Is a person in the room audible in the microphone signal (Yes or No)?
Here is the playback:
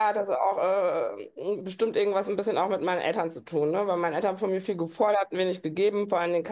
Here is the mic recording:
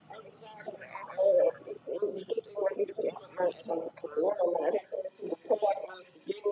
No